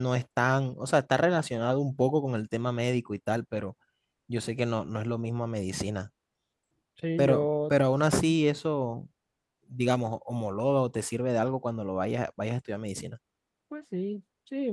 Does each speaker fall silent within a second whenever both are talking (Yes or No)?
Yes